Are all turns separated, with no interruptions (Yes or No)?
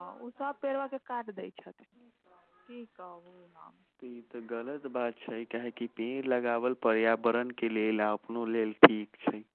Yes